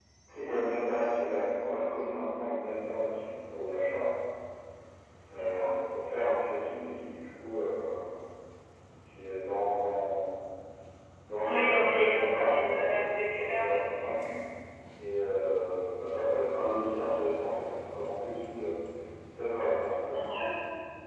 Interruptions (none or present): present